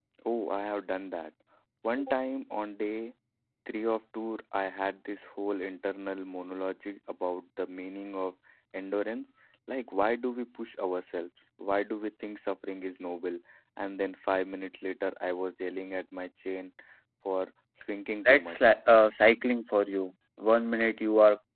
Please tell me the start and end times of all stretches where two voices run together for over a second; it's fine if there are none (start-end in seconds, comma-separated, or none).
none